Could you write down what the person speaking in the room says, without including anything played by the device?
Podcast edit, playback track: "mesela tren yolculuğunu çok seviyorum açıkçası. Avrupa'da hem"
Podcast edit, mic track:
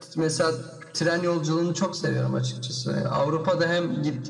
none

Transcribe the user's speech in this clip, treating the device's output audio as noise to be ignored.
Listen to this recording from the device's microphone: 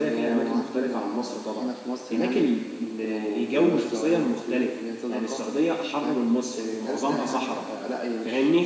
none

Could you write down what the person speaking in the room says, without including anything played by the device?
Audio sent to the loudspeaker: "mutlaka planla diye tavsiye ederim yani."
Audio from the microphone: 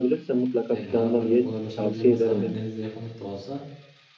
yani arabayla kolaylaşabileceğim mesafede denize yakınlıkta olsa

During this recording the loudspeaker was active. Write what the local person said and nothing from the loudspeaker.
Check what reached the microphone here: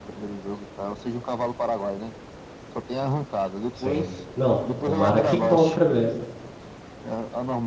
Sim. Não, tomara que compra mesmo.

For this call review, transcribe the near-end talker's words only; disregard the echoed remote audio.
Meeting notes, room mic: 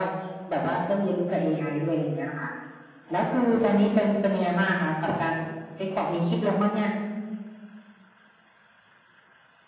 none

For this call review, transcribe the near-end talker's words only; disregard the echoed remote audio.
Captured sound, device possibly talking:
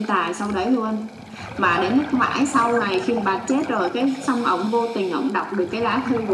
none

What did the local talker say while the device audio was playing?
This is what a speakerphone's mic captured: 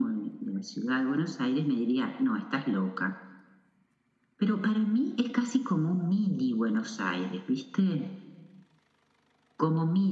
none

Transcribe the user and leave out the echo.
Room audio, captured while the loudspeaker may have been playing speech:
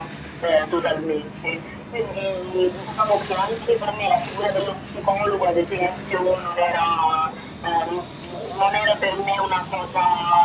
none

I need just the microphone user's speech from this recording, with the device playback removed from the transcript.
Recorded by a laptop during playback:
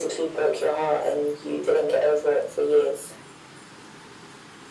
none

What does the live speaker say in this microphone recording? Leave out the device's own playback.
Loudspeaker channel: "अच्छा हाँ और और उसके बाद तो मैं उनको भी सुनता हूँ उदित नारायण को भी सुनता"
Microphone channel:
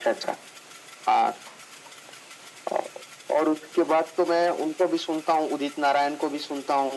none

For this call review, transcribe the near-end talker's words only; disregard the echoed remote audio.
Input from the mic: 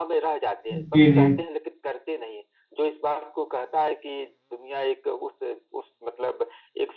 जी जी

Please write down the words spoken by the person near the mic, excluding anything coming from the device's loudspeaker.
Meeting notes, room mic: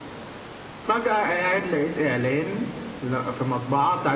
none

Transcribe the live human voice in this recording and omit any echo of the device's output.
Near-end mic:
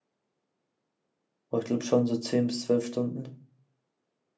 Aber ich glaube schon so 10 bis zwölf Stunden.

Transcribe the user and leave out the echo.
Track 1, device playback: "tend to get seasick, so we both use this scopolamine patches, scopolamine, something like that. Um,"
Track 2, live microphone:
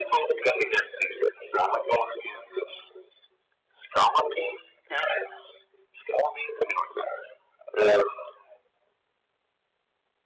none

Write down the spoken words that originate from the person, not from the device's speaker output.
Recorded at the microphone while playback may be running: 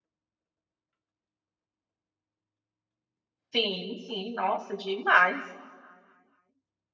Sim, sim, nossa, demais.

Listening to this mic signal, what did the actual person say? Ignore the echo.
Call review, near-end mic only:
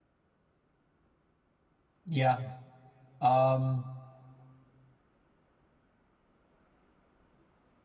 ja, ähm,

